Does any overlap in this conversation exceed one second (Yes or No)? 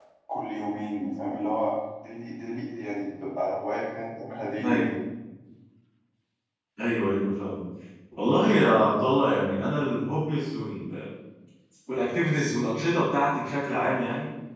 No